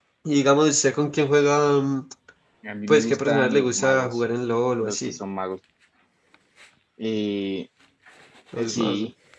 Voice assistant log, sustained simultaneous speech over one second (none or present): present